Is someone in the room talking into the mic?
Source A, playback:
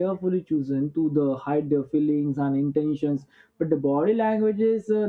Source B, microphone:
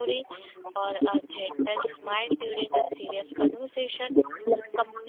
Yes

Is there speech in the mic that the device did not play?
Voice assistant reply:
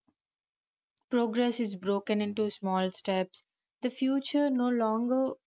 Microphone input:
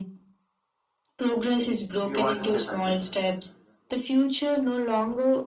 Yes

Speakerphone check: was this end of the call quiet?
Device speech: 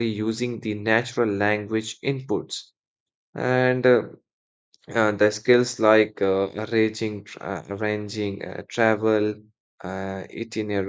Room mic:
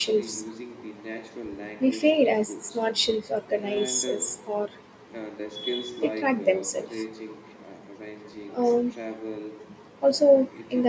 No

